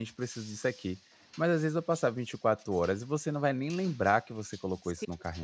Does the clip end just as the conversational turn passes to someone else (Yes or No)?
Yes